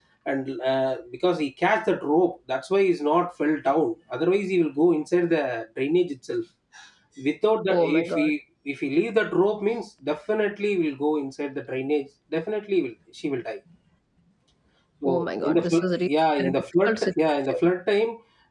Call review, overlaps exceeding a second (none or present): present